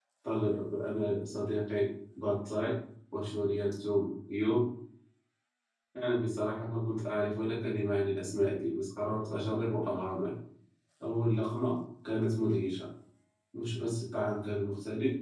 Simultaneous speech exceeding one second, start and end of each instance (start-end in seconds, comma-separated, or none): none